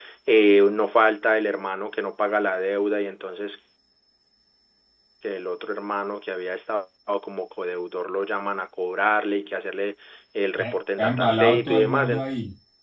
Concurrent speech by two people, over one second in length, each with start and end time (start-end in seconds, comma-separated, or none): 11.0-12.2